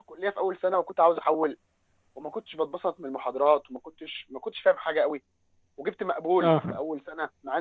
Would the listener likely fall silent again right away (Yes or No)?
Yes